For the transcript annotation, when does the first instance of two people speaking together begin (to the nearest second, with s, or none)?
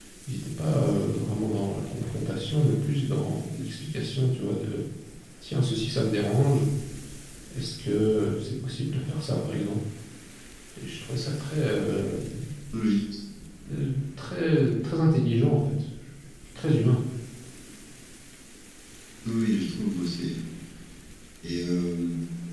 none